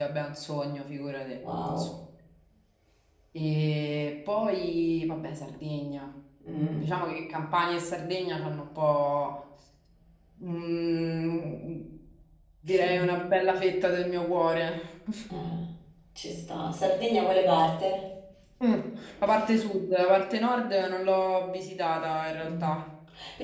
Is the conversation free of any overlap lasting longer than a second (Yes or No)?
Yes